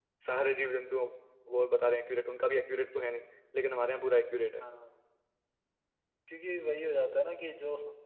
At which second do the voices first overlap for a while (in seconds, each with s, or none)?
none